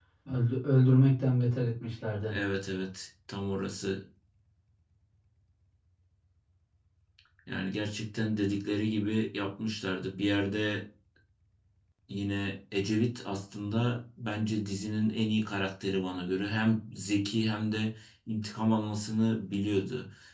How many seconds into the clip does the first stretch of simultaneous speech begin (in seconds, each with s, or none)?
none